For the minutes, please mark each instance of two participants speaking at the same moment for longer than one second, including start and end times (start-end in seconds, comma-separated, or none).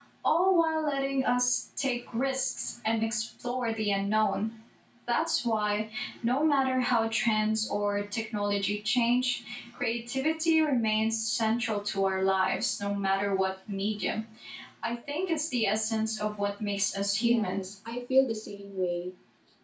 none